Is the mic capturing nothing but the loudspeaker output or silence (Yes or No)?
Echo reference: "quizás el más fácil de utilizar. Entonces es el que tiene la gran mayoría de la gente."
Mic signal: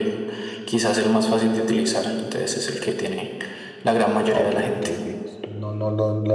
No